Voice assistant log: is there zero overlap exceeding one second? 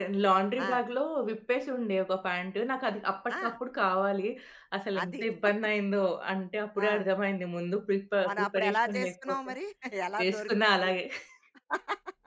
No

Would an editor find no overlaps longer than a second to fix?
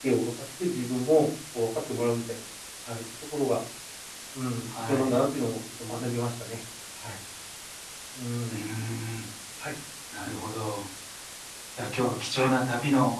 Yes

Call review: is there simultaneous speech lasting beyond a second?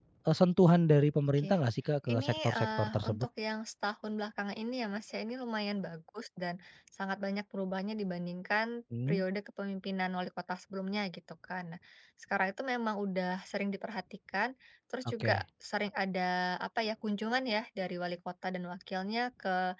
Yes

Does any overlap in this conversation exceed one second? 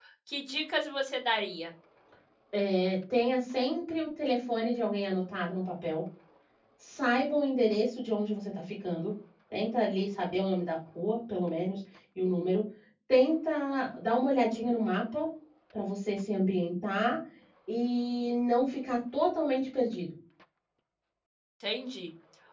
No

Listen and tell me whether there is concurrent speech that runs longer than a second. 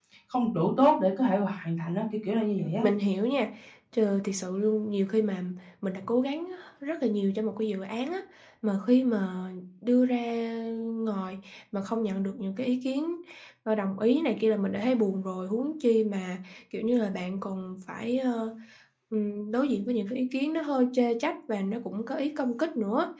No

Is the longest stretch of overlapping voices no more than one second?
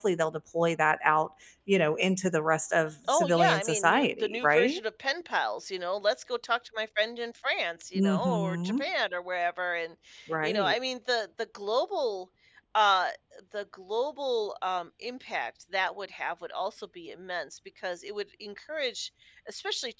No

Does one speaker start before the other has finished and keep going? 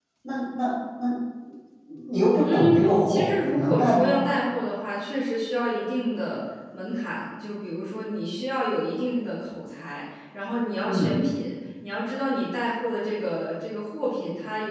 Yes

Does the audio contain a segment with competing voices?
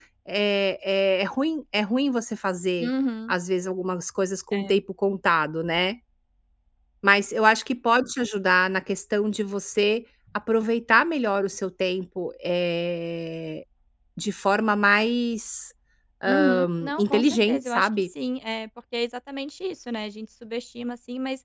Yes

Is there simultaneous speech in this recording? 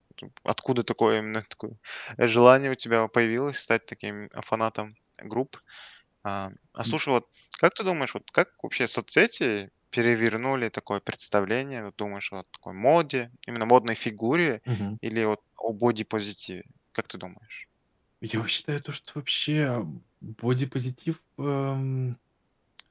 No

